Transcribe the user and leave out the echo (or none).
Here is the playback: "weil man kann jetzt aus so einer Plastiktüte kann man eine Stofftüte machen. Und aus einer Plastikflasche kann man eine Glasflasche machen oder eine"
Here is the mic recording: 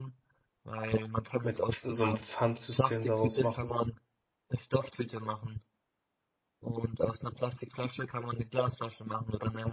mit so einem Pfandsystem daraus machen.